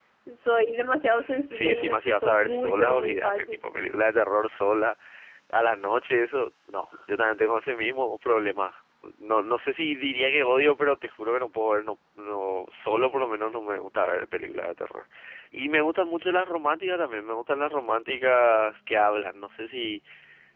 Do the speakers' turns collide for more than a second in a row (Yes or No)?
Yes